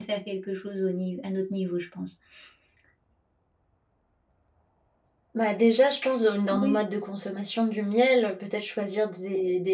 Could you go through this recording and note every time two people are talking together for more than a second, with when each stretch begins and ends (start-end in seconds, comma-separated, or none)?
none